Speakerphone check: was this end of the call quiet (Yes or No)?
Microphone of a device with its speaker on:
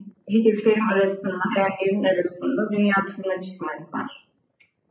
Yes